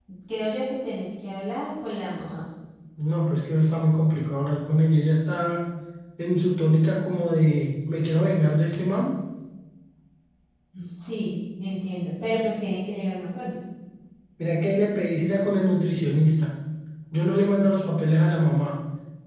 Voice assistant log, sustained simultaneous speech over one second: none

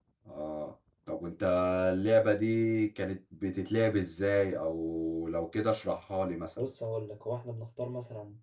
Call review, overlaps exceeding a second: none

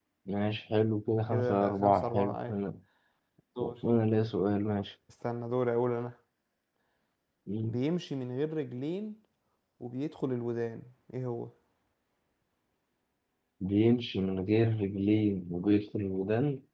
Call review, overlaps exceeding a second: present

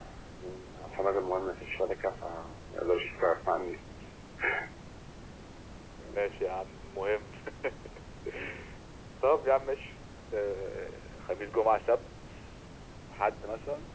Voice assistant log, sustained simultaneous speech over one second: none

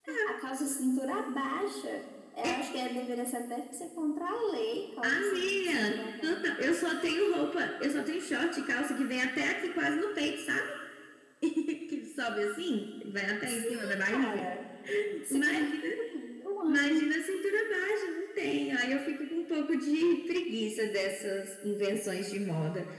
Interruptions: present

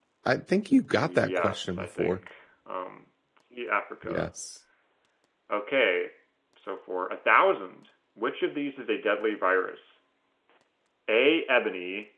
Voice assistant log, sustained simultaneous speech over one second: present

